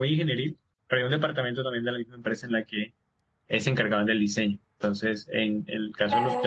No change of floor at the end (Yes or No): Yes